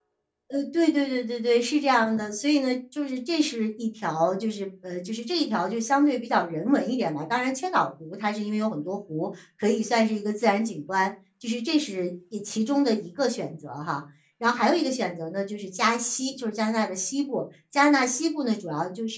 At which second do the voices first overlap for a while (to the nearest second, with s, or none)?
none